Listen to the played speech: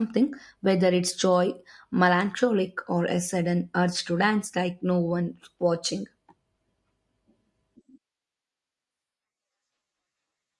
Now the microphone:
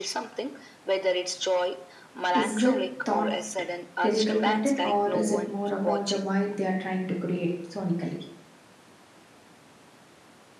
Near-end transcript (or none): Is it thought lyrical content or is it more about the vibe they are trying to create sonically?